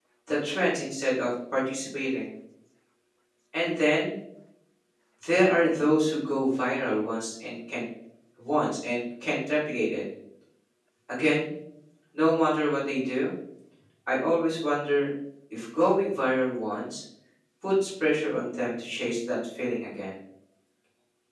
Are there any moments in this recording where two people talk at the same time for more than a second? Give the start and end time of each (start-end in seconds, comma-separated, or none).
none